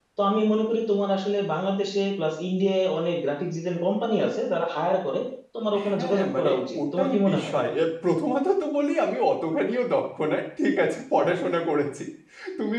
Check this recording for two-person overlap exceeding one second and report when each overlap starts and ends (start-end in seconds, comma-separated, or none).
5.9-7.5